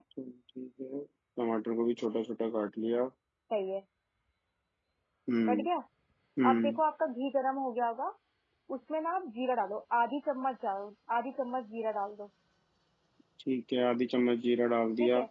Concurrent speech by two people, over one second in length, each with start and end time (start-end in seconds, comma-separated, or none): none